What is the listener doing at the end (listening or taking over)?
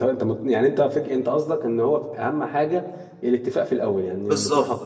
taking over